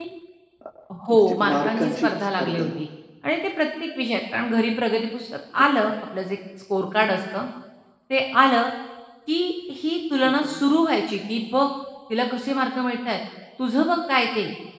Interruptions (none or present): present